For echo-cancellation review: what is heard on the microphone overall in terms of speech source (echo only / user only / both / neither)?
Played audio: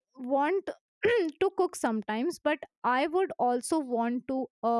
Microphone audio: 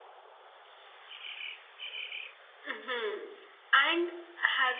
user only